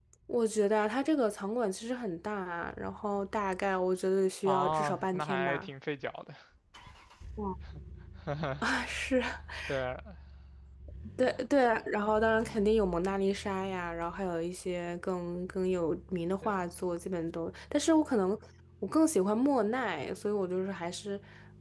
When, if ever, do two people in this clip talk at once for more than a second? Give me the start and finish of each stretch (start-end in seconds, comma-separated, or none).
4.4-5.7